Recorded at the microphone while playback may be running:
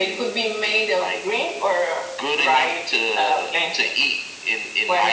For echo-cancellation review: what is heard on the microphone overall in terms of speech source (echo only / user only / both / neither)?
echo only